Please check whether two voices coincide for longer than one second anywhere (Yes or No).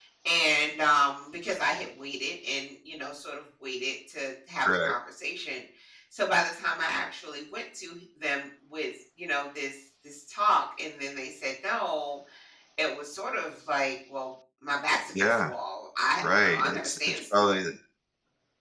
Yes